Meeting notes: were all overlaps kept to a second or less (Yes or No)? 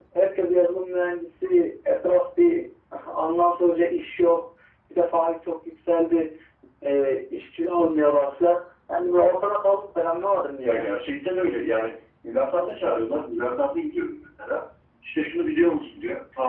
Yes